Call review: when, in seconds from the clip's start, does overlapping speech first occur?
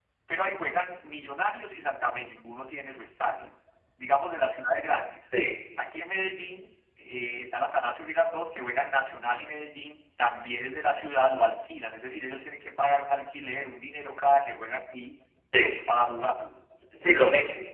none

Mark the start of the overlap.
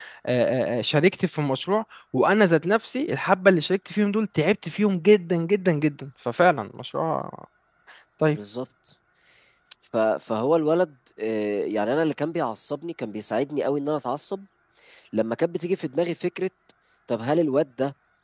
none

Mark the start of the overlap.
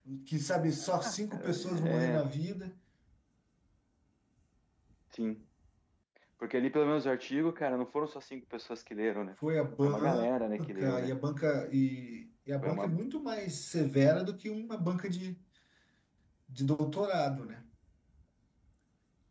0.8 s

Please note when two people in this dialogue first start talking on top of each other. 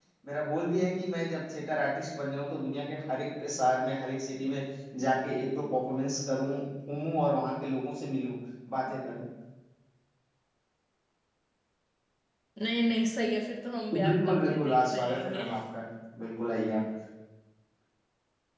13.9 s

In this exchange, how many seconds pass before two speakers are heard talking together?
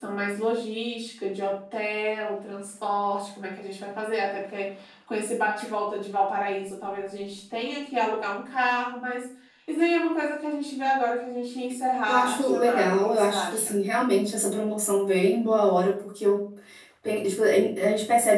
12.1 s

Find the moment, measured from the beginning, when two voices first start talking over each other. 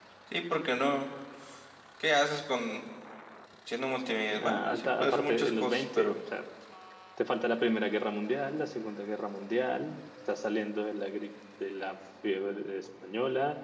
4.4 s

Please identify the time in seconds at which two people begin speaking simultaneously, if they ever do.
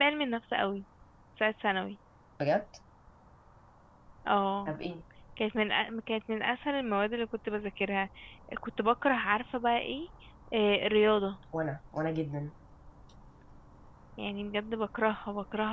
none

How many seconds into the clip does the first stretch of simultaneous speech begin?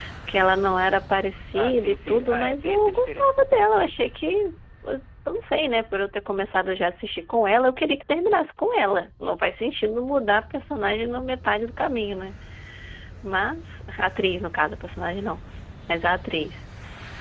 1.5 s

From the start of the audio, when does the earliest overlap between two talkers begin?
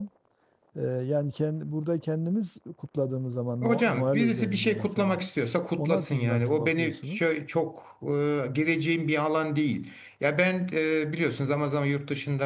3.6 s

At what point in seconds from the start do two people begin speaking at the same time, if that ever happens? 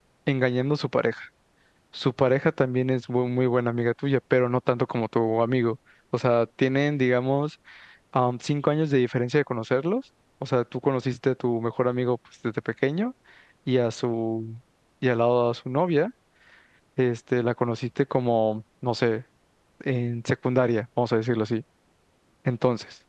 none

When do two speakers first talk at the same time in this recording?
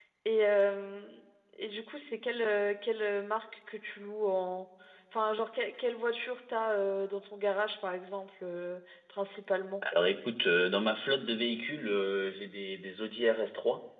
none

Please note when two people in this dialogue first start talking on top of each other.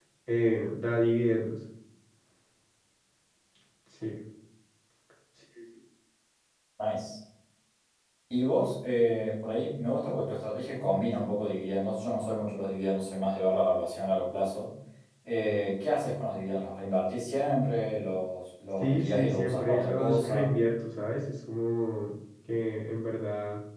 18.8 s

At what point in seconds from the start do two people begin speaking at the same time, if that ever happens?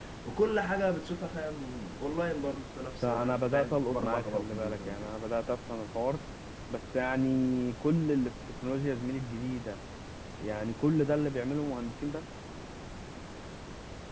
3.0 s

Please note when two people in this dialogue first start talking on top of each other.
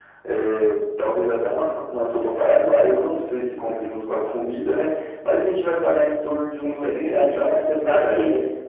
6.6 s

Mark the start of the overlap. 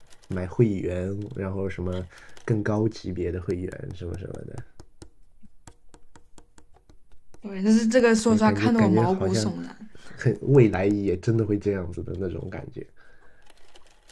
8.3 s

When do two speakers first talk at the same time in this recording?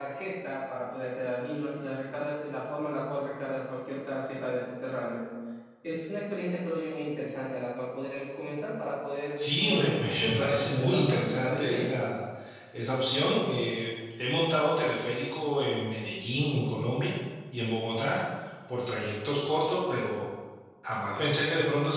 9.4 s

